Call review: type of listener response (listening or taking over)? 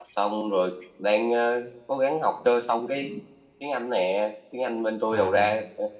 listening